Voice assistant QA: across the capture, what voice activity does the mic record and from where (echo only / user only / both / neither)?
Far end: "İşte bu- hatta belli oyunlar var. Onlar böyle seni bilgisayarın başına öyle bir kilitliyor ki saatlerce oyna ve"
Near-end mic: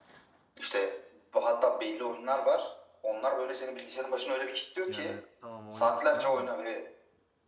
both